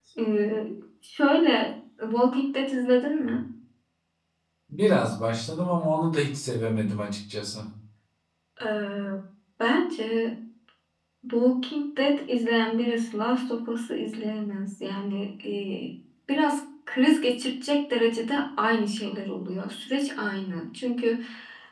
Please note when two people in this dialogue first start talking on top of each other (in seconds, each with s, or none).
none